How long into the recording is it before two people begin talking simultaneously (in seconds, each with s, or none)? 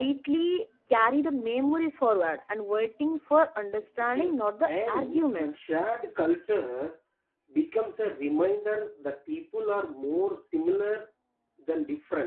4.0 s